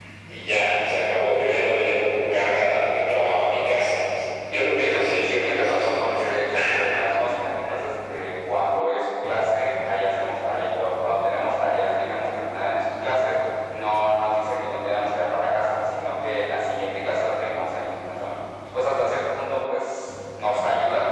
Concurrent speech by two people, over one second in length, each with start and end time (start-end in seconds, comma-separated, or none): 4.5-6.3